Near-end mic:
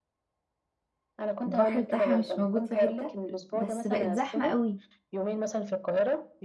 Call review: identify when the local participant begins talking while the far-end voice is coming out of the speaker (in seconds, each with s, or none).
1.4 s